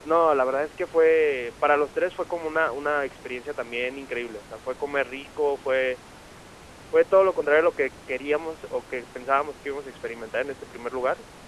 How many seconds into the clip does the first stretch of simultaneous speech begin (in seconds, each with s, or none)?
none